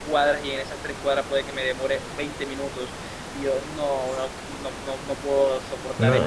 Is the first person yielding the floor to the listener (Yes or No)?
Yes